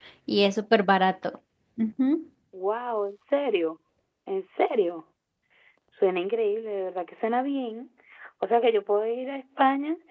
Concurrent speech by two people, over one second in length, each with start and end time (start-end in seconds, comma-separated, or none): none